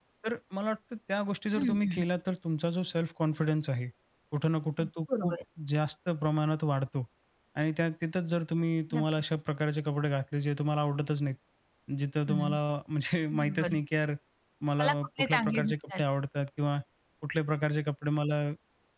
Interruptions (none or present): present